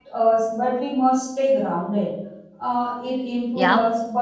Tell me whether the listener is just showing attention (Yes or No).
Yes